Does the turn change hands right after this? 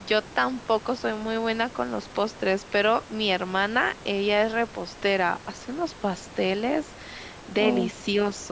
No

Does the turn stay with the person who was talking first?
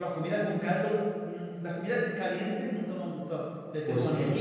No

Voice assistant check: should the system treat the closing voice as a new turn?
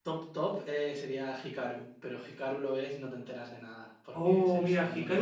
Yes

